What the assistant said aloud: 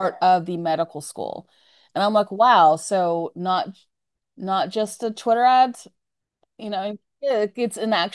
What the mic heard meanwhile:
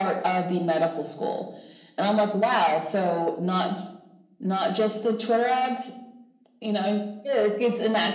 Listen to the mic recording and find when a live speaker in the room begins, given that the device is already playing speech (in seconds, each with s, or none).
none